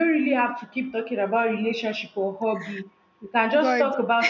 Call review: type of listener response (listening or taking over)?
listening